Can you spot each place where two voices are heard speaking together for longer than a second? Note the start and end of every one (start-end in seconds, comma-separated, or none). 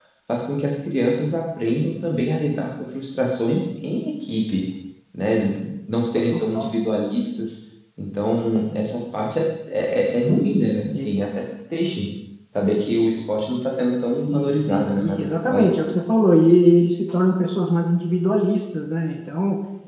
14.3-15.7